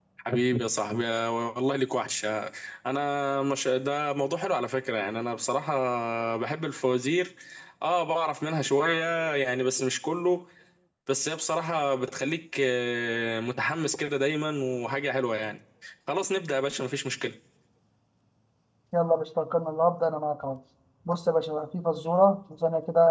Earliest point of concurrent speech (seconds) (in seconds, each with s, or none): none